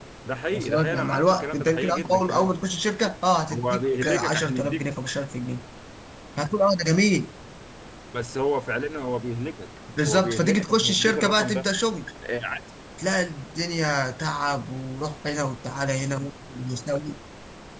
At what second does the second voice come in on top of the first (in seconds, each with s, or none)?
0.5 s